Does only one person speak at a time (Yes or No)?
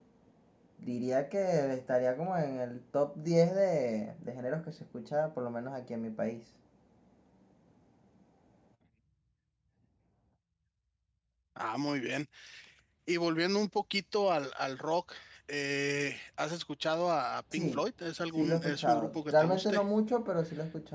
No